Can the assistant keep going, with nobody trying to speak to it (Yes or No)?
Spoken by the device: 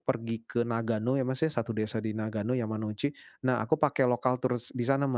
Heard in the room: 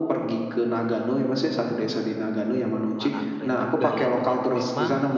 No